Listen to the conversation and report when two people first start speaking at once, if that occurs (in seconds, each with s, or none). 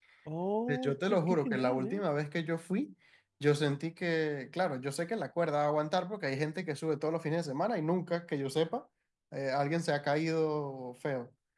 0.7 s